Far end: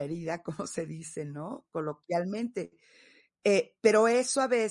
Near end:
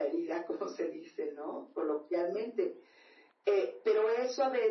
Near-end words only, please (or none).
none